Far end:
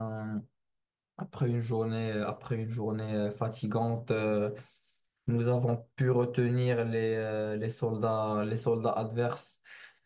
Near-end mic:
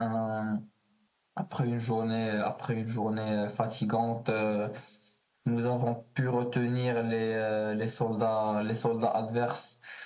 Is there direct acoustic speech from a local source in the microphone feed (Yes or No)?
No